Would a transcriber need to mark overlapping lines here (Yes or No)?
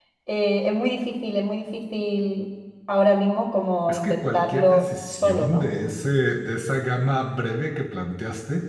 Yes